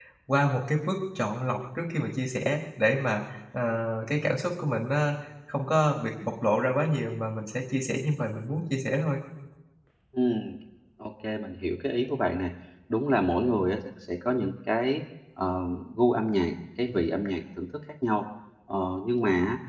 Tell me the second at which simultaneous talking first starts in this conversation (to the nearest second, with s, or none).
none